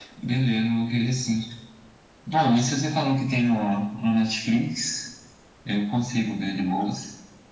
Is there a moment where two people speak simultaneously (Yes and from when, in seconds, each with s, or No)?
No